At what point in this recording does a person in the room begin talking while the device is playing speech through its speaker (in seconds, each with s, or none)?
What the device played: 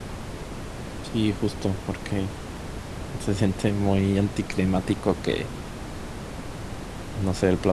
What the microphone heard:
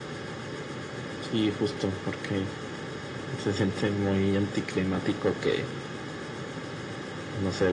none